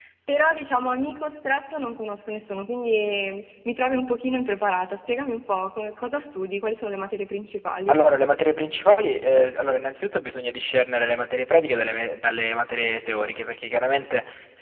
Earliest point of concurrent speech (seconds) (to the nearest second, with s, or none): none